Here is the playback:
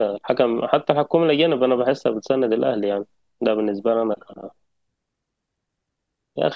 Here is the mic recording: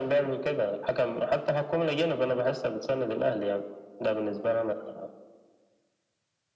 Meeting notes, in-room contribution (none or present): none